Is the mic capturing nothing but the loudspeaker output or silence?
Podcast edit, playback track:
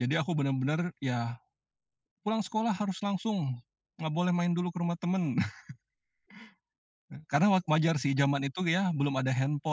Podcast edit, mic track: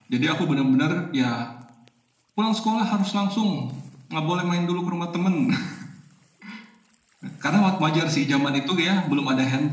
Yes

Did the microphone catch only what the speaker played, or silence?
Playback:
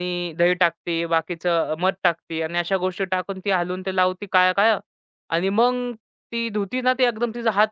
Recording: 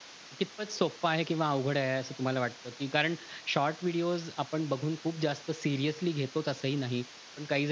No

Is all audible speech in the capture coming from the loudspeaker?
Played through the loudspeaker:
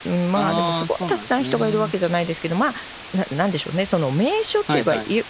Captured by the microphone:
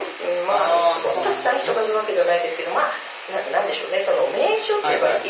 No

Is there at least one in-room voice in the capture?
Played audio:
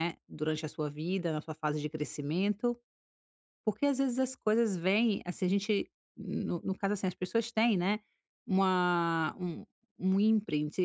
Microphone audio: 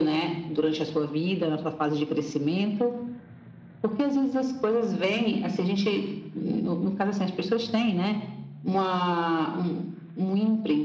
No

